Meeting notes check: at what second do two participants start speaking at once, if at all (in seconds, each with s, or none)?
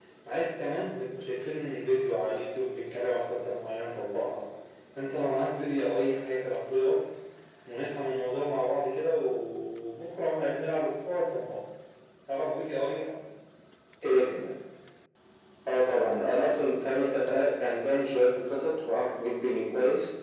none